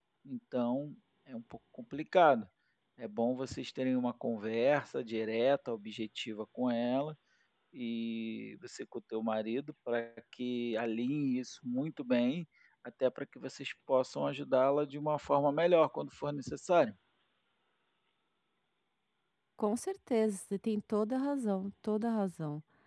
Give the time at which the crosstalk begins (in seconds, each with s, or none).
none